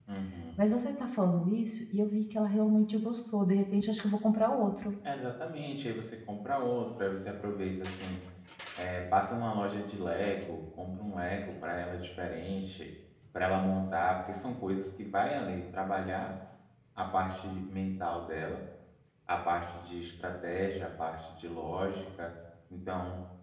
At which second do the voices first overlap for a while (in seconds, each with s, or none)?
none